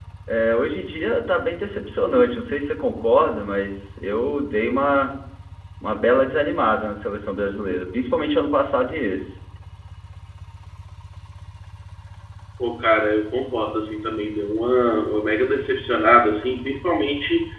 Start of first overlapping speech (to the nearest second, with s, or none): none